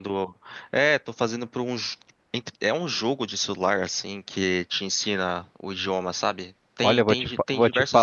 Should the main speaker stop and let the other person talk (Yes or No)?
Yes